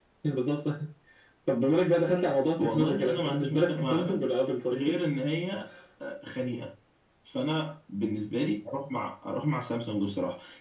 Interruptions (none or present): present